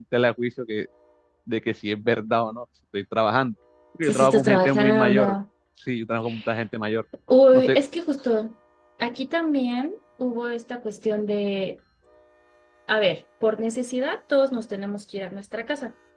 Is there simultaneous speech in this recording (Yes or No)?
Yes